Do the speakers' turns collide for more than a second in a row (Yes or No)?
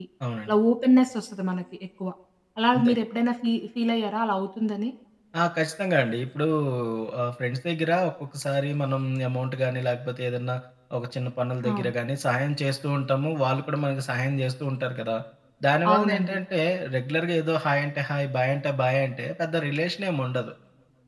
No